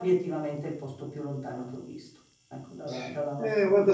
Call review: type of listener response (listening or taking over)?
taking over